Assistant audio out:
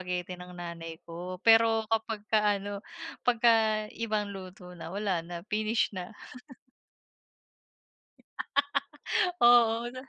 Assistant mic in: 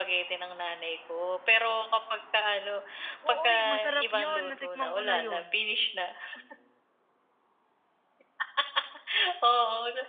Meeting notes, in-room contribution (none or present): present